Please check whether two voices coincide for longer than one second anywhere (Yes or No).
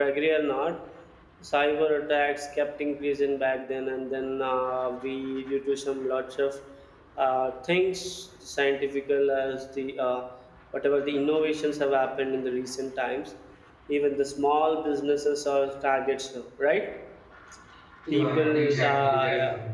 Yes